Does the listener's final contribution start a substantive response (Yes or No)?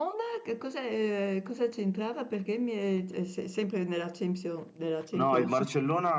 Yes